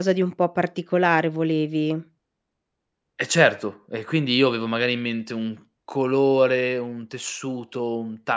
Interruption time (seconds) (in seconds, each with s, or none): none